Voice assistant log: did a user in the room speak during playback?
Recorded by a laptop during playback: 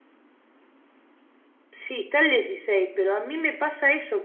Yes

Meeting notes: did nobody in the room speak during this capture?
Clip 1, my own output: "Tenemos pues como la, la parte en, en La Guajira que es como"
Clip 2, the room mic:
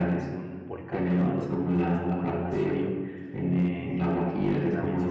No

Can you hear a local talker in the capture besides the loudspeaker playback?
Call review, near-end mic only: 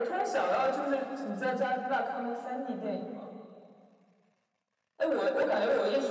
No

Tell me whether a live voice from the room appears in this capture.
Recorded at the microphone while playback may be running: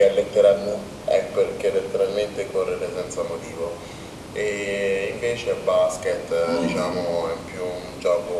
Yes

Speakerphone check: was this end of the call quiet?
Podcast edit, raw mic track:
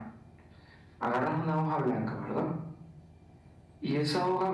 Yes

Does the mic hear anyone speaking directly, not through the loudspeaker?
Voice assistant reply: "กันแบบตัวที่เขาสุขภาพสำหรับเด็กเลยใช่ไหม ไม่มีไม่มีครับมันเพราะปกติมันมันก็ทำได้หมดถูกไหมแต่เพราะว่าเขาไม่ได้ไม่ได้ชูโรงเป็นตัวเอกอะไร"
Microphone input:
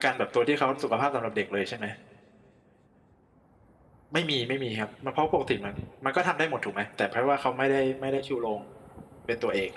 No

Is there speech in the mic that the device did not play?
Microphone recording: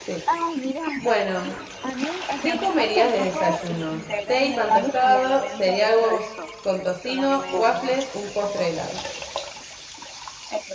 Yes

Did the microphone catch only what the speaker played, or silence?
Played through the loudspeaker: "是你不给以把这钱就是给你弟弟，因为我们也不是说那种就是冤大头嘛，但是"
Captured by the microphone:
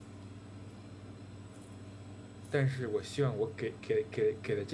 No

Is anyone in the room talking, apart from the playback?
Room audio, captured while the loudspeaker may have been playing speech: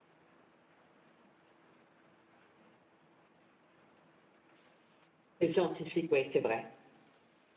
Yes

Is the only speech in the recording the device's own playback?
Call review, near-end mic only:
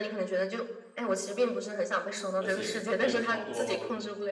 No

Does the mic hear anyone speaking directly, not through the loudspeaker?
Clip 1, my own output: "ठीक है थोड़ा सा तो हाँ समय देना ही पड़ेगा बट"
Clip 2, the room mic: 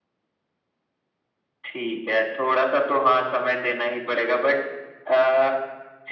No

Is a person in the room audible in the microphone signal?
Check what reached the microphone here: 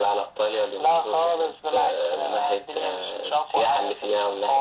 No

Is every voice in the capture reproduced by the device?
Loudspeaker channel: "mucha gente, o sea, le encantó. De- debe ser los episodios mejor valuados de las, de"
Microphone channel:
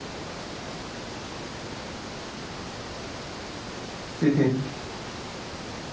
No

